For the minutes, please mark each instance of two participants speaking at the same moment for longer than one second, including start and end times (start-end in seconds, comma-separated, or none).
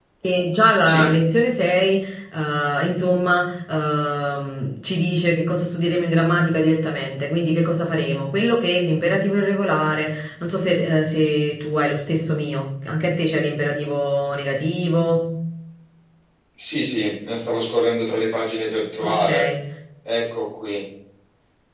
none